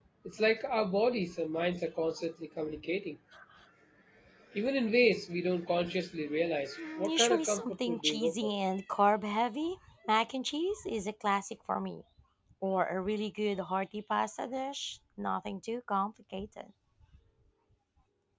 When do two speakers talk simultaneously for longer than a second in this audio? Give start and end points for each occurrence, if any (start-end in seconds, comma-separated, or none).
6.8-8.5